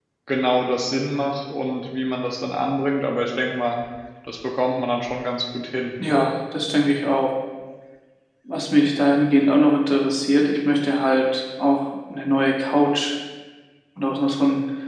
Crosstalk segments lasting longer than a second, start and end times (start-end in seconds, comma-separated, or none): none